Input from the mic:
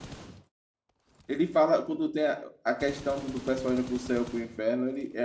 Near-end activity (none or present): present